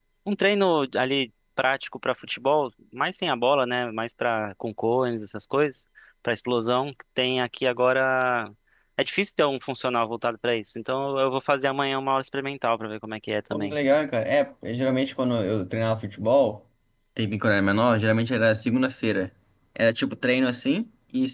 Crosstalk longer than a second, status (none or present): none